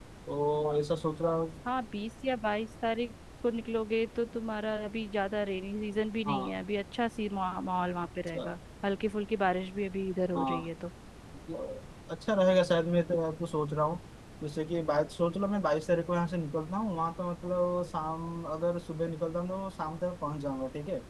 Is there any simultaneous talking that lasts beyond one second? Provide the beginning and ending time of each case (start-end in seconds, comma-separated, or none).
none